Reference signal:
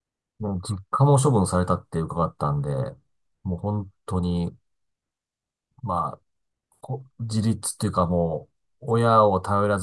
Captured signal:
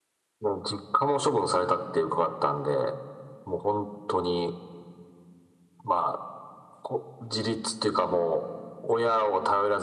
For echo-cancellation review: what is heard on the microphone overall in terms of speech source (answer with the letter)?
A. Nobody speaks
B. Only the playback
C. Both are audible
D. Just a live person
B